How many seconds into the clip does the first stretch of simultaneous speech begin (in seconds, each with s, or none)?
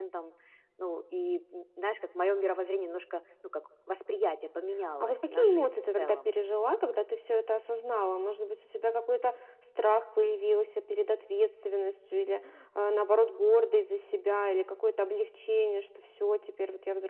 5.0 s